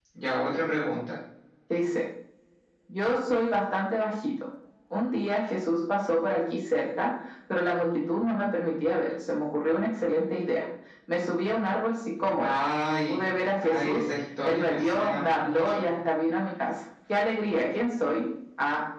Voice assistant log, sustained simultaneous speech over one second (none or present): present